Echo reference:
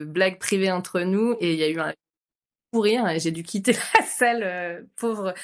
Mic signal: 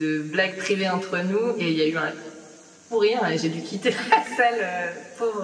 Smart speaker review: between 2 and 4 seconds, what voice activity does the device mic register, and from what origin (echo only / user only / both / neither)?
echo only